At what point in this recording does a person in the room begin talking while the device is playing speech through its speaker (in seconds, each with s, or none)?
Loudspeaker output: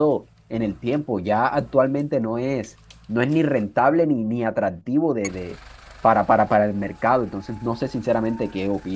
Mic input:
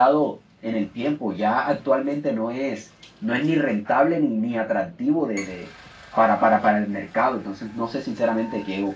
none